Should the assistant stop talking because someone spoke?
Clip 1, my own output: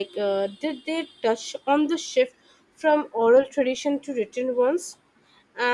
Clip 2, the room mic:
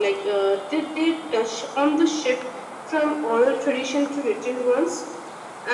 No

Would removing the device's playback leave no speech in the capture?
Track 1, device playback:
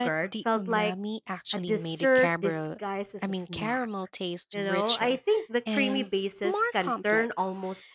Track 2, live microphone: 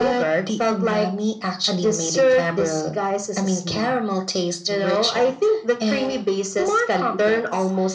Yes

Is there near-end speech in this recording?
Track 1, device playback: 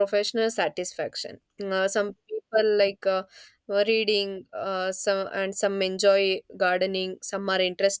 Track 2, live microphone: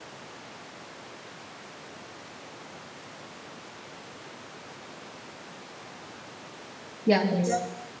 Yes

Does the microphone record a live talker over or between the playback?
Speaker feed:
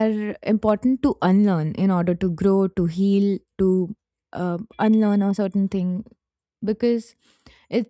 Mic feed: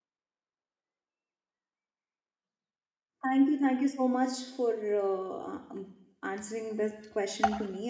Yes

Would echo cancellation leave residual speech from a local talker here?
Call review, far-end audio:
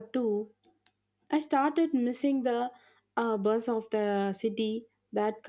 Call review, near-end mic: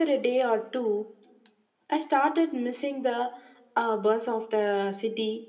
No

